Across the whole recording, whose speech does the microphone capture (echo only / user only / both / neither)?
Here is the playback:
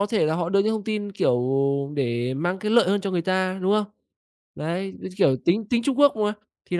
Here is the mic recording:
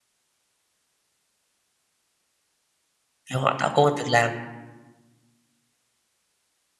user only